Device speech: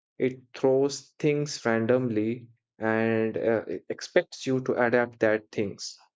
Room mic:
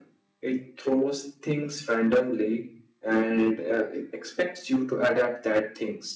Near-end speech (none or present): none